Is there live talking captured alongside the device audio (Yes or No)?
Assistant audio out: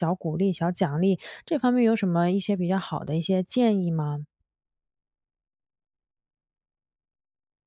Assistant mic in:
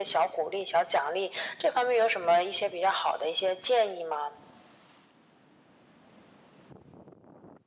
No